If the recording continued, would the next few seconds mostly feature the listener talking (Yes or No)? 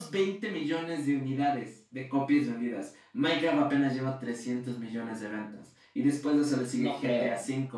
No